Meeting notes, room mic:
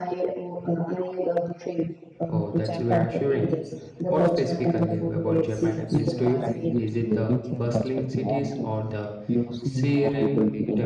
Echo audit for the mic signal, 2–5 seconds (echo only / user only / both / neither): both